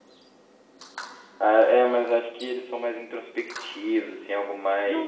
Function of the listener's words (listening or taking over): taking over